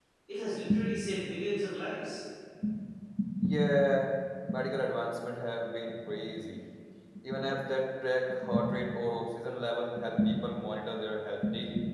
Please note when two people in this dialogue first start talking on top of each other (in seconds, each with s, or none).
none